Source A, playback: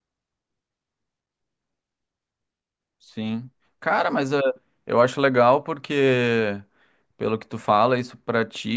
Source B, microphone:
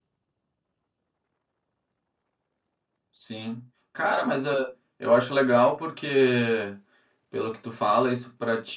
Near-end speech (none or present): none